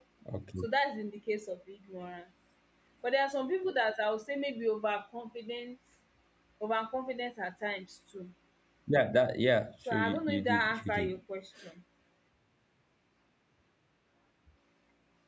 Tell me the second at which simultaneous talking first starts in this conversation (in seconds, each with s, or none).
9.9 s